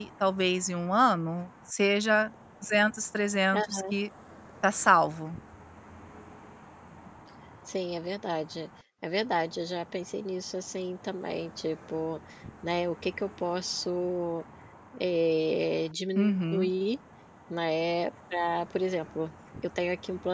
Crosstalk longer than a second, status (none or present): none